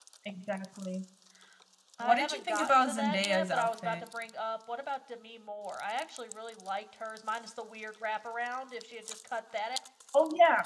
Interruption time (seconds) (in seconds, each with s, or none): 2.0 s